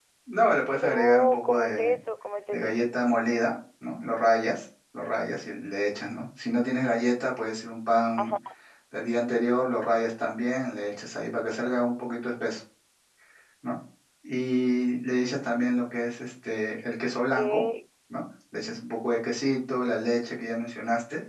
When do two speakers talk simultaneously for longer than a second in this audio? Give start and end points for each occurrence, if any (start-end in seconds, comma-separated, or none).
0.7-2.0